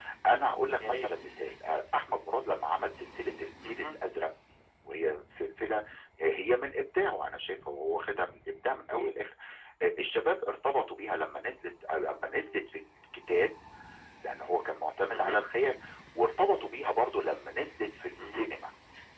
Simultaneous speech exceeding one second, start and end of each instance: none

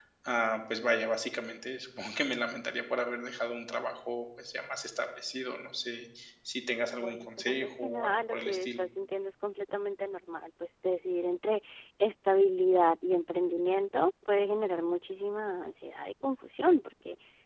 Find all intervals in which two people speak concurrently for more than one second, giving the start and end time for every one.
7.0-8.8

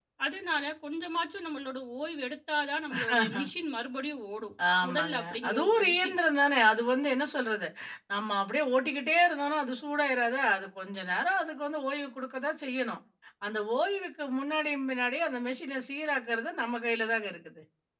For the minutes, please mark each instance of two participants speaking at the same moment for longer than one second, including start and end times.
4.8-6.2

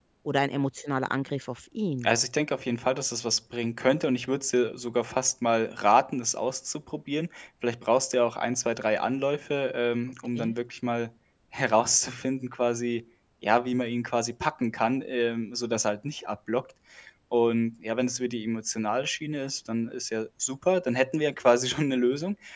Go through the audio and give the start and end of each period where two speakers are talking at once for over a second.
none

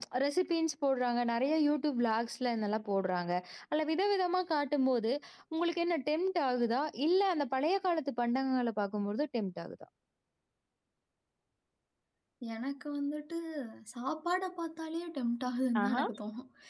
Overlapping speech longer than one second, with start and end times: none

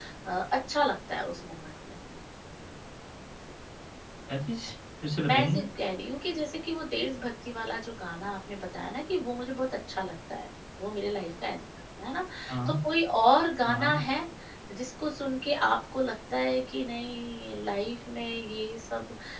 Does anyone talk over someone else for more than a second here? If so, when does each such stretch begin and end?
none

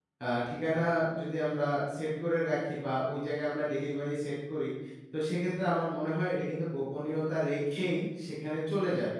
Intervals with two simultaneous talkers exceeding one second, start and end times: none

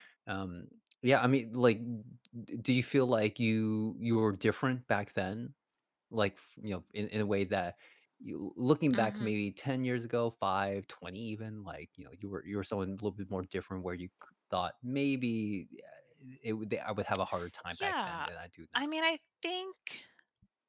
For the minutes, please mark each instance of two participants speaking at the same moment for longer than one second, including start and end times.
none

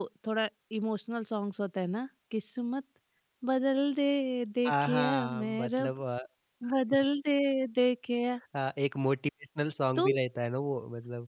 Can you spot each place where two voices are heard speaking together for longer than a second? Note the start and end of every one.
4.7-5.9

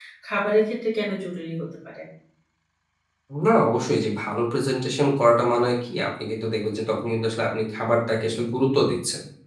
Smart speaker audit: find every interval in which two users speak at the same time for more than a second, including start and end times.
none

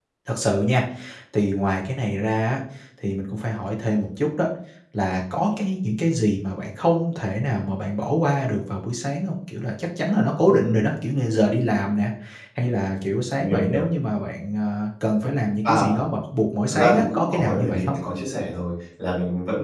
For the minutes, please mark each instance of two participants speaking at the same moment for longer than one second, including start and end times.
16.7-18.0

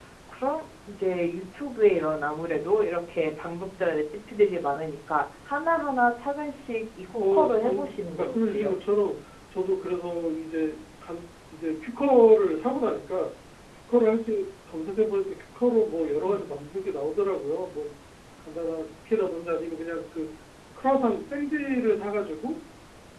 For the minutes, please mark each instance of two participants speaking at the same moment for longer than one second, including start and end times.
7.1-8.7

